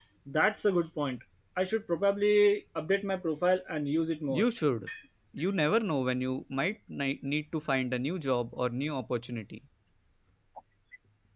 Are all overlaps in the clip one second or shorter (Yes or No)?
Yes